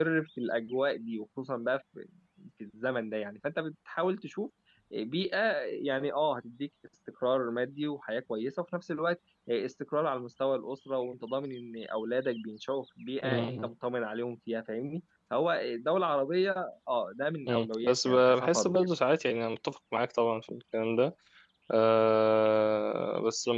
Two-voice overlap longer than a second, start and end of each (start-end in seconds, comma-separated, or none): 17.5-18.8